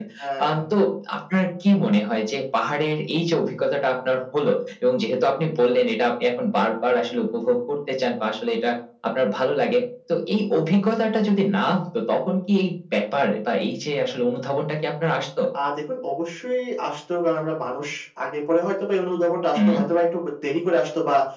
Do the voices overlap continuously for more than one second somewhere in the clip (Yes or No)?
No